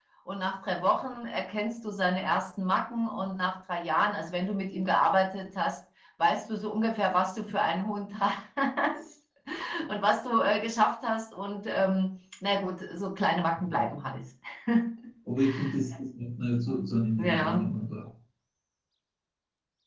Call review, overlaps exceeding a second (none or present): none